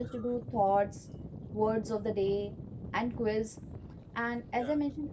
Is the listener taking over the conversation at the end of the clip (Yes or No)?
No